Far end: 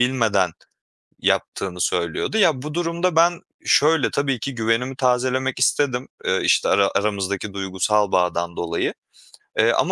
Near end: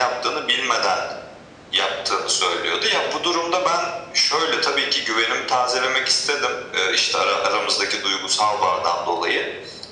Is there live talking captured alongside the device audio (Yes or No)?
No